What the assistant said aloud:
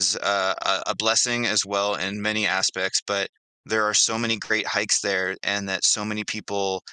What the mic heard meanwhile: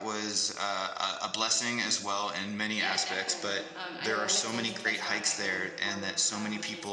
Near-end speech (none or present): present